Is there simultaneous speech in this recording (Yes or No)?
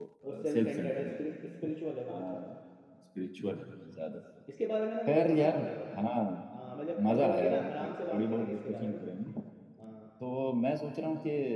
Yes